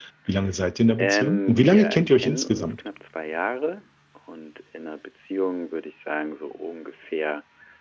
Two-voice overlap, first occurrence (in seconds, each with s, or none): 1.0 s